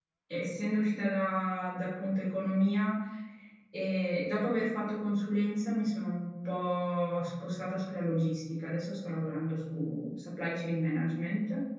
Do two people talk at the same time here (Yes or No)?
No